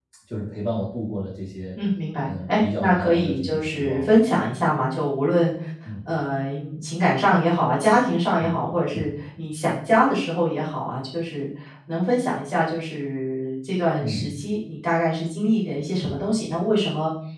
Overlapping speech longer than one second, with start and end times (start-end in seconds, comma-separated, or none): 2.2-4.2